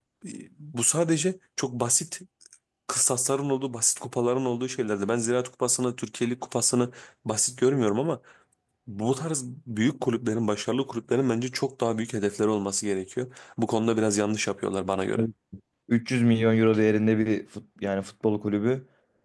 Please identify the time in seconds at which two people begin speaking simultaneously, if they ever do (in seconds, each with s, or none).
none